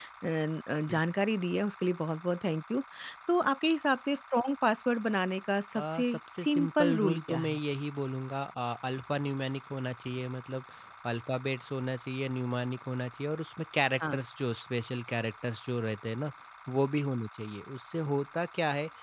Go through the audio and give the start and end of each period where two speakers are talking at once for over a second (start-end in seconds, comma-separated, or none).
5.8-7.6